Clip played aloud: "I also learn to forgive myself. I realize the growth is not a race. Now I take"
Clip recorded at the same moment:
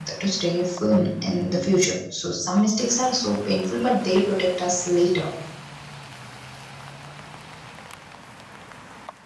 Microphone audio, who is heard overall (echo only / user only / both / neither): user only